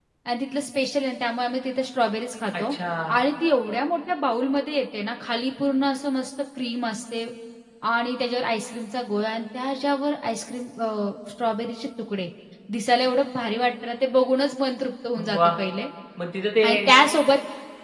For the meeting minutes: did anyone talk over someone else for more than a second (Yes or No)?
No